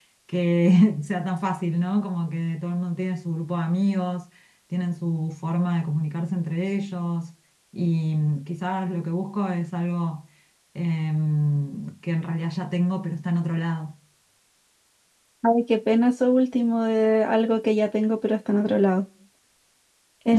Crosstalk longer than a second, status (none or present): none